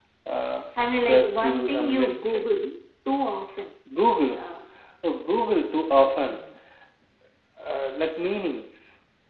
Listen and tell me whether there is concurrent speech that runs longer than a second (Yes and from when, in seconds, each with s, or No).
Yes, from 0.8 s